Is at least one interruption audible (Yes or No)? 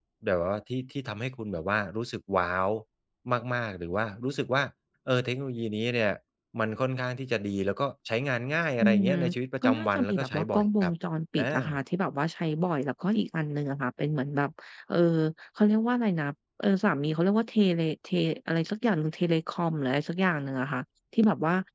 Yes